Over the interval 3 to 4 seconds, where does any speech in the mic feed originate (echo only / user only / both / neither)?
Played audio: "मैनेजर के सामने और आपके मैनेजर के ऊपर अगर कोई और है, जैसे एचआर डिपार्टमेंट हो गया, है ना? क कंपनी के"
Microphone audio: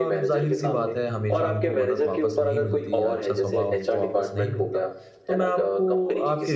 both